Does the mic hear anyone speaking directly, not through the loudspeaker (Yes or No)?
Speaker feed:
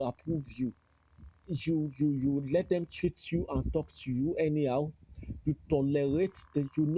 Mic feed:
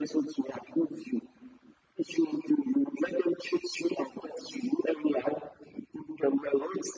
No